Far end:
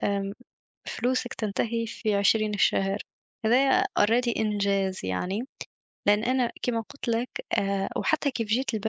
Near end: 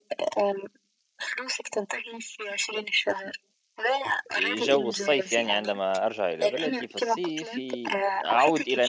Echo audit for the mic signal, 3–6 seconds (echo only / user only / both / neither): both